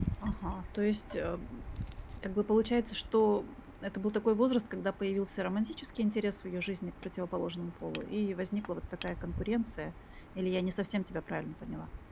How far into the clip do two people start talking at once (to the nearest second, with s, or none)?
none